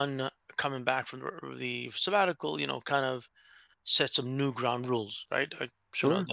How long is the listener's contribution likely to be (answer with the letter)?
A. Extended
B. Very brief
A